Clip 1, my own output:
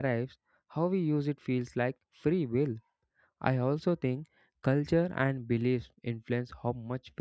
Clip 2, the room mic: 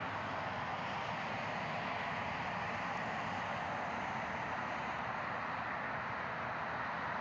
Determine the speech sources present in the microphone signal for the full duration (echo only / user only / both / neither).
neither